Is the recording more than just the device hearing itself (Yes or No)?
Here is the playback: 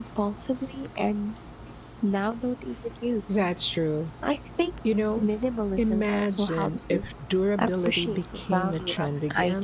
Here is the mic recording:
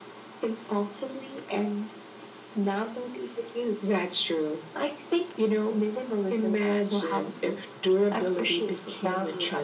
No